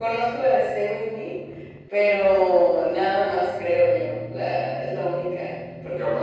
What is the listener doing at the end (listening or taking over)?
taking over